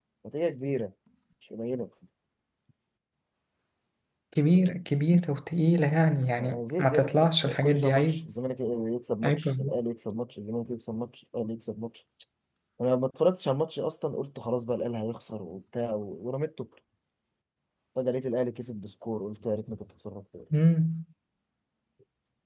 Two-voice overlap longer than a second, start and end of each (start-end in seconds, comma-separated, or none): 6.4-8.3